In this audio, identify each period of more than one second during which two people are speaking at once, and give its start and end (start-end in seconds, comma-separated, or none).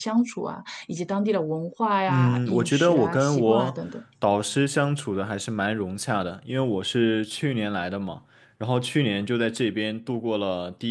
2.1-3.8